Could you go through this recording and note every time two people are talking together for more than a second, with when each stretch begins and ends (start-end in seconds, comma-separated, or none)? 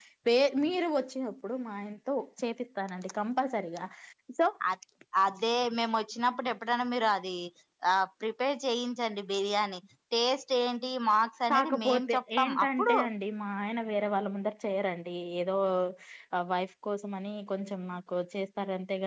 11.5-12.9